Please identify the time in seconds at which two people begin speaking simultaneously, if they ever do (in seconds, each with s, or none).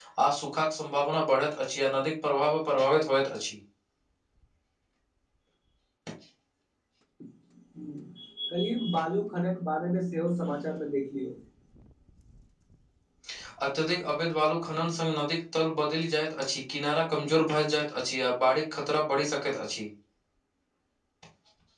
none